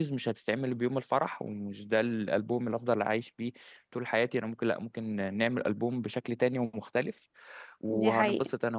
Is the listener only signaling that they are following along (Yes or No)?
Yes